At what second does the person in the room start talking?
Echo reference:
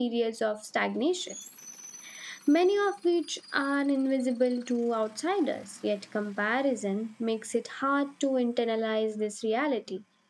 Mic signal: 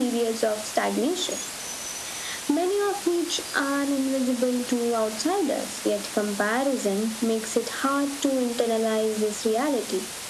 none

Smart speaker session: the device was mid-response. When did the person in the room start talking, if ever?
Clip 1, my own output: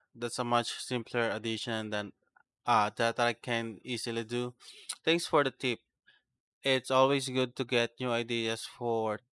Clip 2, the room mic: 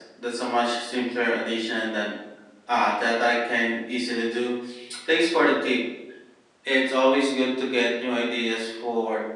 none

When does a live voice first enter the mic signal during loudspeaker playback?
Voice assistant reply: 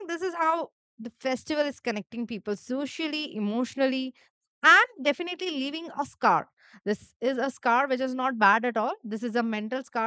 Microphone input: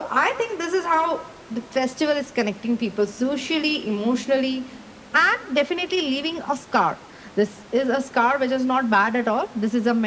none

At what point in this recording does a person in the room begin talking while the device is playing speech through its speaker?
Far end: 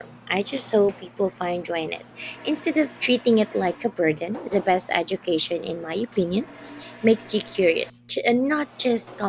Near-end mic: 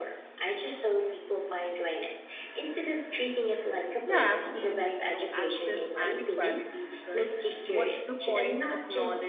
4.1 s

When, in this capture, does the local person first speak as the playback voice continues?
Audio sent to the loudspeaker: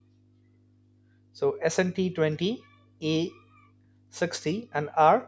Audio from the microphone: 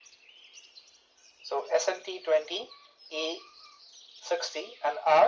none

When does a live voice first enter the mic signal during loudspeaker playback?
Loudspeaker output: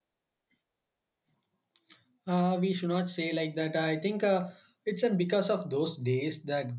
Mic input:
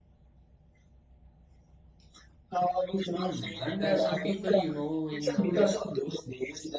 3.1 s

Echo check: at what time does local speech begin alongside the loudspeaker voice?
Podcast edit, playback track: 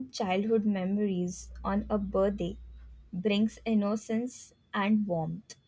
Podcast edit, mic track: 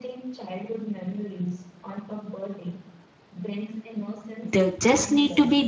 4.5 s

